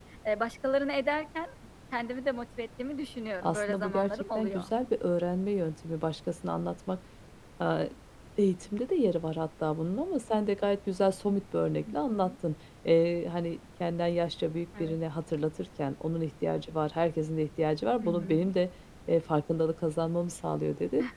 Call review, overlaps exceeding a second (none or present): present